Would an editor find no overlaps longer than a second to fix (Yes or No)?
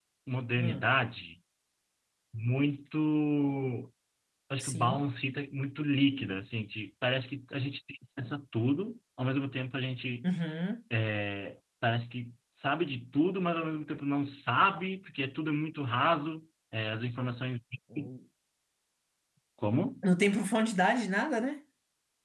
Yes